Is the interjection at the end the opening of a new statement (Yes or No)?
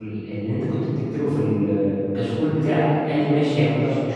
No